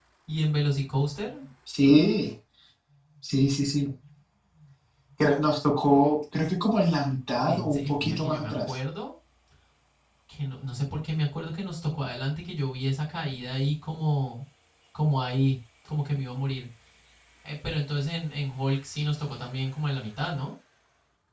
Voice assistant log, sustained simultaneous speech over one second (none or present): present